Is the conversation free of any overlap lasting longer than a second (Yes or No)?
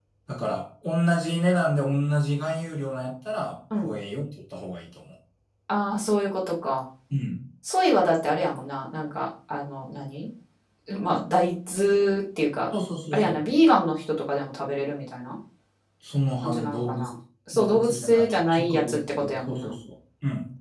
No